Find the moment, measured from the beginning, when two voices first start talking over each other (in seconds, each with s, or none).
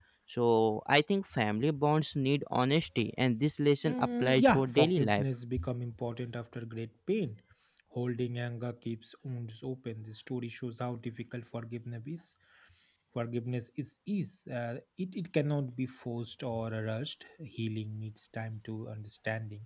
3.8 s